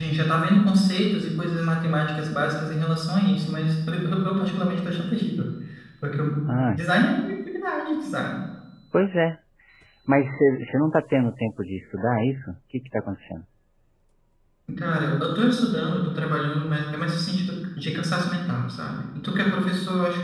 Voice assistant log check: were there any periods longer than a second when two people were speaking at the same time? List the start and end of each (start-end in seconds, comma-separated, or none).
none